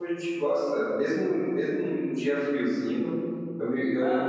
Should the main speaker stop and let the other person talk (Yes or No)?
No